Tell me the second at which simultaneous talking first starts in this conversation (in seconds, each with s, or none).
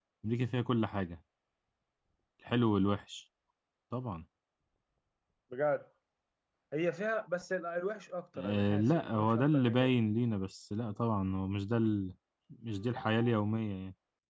8.4 s